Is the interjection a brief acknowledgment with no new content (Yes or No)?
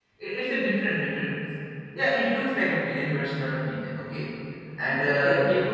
Yes